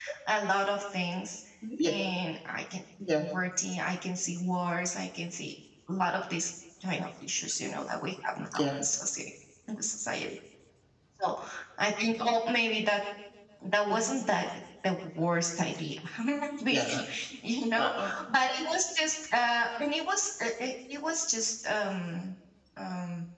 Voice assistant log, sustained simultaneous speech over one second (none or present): none